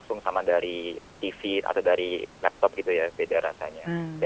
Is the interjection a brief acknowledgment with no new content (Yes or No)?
No